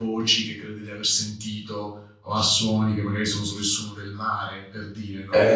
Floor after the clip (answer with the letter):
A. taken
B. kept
A